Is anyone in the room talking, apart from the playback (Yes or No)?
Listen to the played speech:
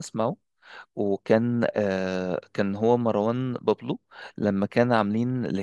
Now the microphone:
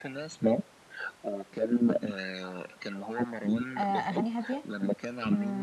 Yes